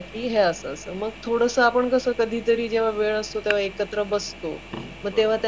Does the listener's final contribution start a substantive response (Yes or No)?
No